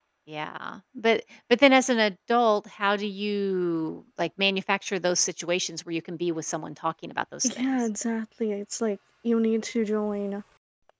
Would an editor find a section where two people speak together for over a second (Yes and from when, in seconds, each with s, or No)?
No